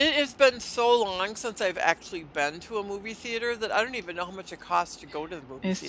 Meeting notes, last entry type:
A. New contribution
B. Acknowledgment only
A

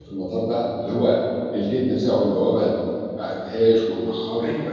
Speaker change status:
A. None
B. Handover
B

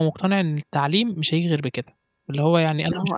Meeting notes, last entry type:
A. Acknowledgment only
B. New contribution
A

